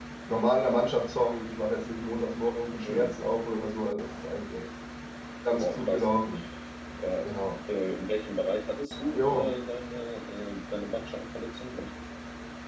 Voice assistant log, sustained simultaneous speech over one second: none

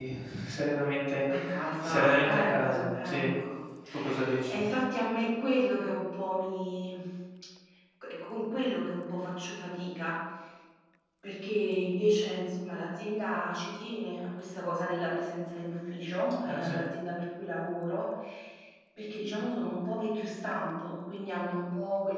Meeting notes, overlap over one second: present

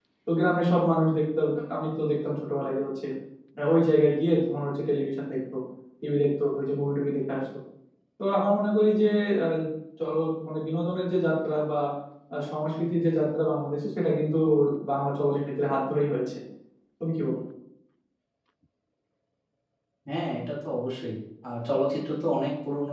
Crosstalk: none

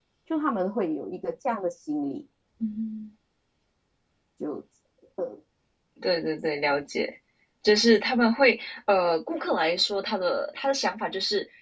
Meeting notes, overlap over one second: none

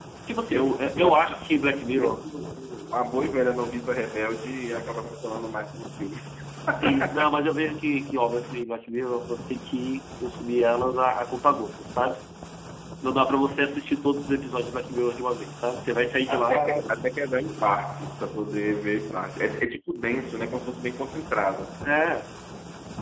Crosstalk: present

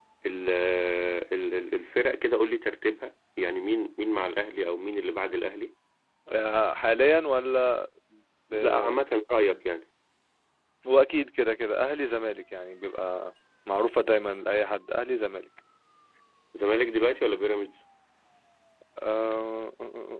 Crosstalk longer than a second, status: none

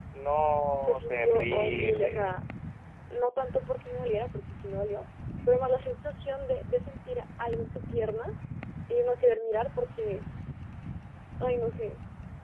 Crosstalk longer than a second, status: present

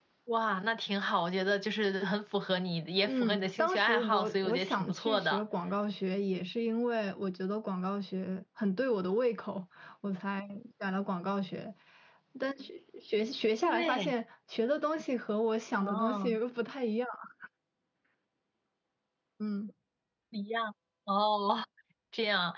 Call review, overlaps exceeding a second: present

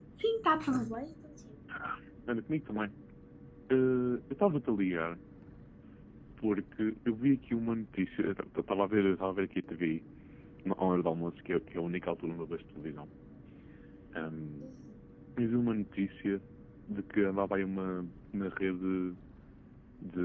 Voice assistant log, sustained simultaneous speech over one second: none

